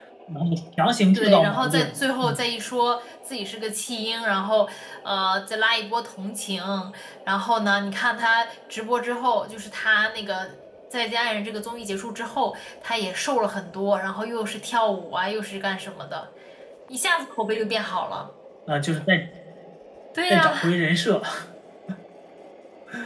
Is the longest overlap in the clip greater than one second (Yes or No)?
Yes